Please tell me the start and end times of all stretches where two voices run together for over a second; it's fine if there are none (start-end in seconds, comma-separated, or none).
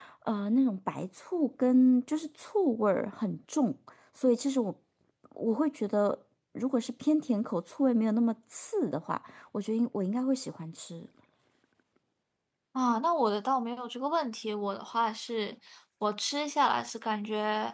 none